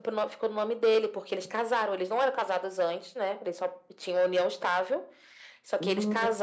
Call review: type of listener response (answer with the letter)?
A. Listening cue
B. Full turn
A